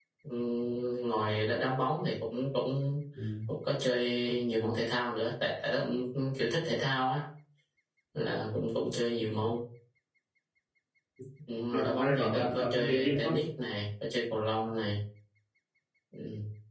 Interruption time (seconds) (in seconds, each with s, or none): 11.7 s